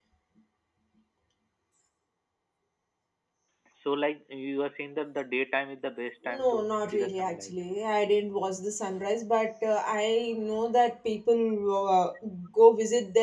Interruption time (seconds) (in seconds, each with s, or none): 6.2 s